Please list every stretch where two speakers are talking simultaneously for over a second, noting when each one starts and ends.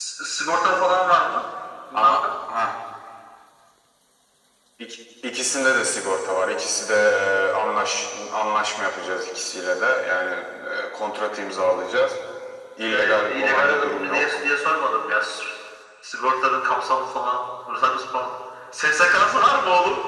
12.9-14.4

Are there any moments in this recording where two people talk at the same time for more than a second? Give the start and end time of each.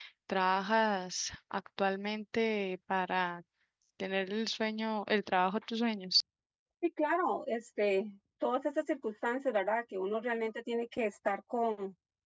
none

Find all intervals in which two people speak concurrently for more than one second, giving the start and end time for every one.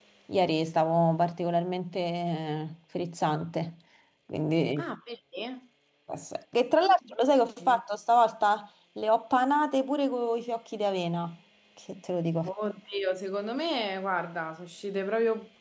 none

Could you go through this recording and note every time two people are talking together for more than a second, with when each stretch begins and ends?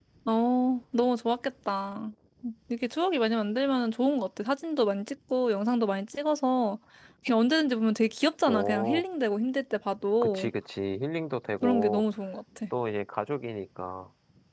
none

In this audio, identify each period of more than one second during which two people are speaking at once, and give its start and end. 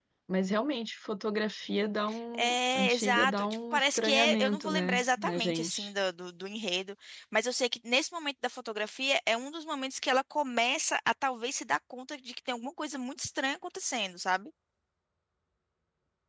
2.4-5.9

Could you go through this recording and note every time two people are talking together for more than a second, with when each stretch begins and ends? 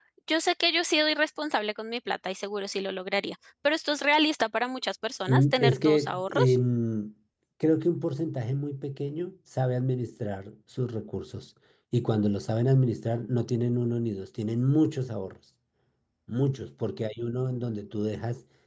5.3-6.5

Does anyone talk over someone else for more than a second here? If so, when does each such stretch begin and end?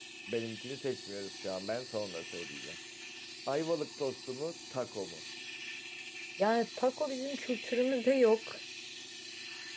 none

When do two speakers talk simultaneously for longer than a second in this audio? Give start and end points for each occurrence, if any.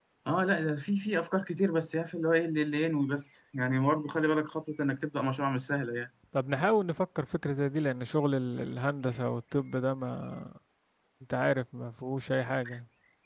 none

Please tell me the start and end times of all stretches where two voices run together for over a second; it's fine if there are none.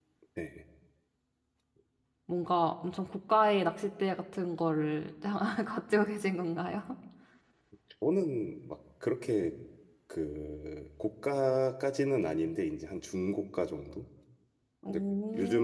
none

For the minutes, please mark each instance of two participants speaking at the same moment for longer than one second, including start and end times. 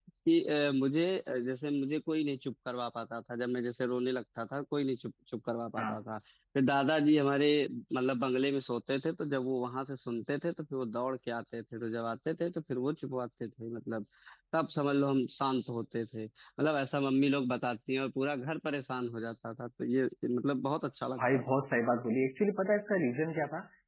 none

